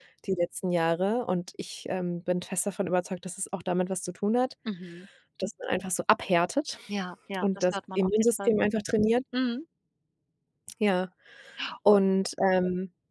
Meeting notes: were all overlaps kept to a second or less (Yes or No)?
No